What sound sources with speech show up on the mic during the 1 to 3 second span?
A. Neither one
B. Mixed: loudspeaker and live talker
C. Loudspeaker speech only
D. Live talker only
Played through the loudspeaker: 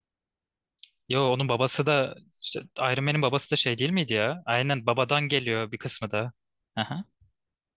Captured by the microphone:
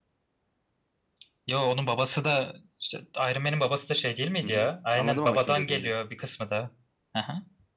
C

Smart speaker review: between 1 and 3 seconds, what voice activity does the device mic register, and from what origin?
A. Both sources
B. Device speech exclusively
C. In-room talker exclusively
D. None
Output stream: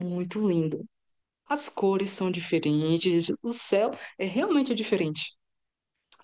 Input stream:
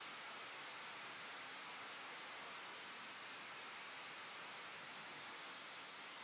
D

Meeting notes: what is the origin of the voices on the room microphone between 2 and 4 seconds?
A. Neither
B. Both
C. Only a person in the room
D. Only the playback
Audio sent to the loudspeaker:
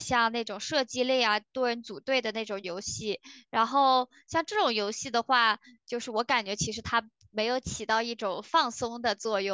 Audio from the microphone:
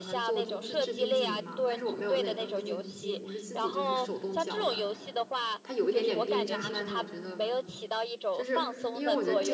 B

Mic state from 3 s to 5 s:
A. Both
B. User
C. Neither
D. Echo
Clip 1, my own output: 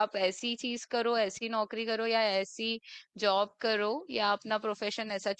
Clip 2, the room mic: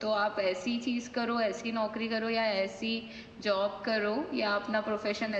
D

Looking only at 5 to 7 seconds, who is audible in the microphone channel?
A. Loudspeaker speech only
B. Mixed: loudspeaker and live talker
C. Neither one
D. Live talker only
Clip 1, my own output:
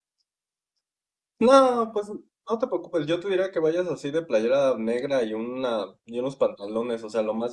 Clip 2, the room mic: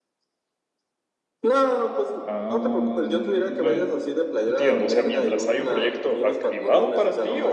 B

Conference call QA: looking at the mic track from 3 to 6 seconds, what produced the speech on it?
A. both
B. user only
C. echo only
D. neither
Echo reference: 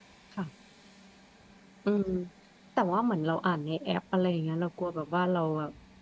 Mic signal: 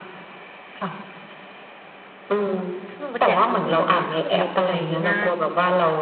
A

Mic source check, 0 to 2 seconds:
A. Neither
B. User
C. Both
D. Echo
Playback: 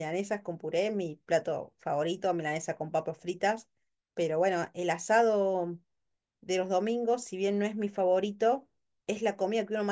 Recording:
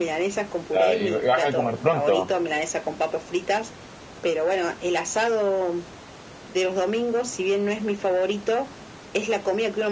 C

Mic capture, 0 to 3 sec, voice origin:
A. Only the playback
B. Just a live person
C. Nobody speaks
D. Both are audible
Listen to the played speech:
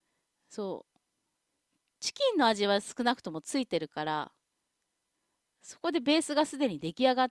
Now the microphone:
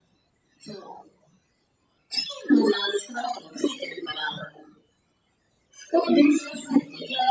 A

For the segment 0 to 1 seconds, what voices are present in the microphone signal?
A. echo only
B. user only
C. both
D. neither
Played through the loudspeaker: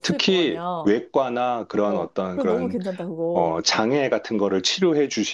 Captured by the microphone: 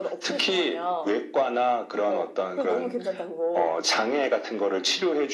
A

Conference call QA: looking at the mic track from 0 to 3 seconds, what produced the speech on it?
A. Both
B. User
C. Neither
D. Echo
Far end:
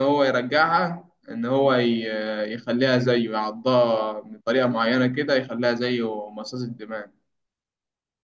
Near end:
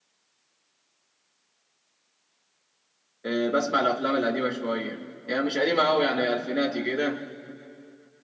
C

